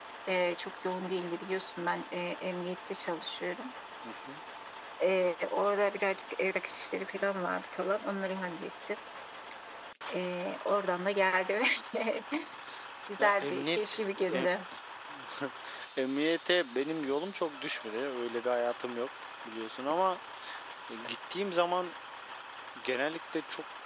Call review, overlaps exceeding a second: present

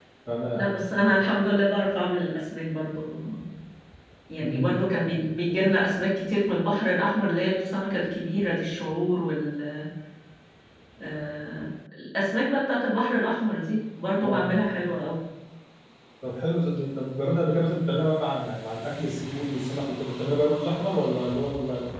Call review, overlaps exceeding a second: none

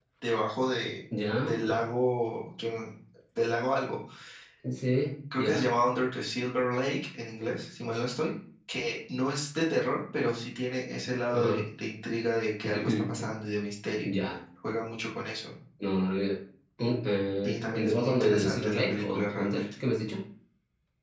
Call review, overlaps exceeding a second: present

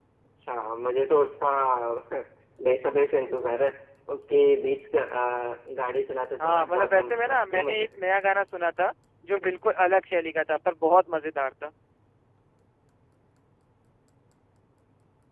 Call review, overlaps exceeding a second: present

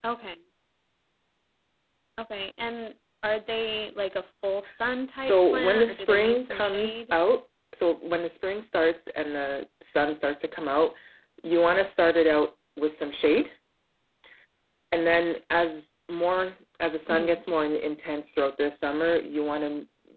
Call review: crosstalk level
present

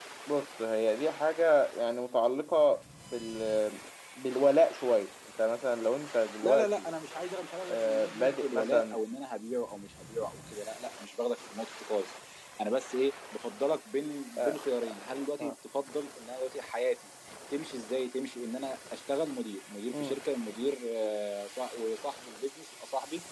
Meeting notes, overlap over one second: present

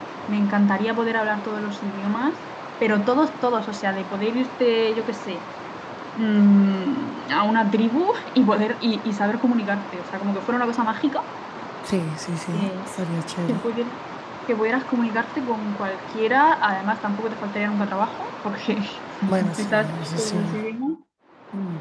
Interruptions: present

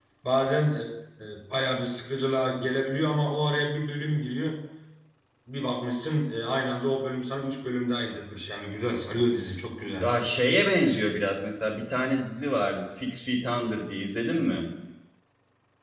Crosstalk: none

